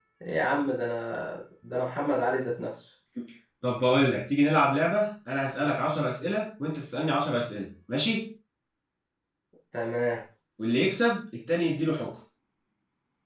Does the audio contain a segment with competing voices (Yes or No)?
No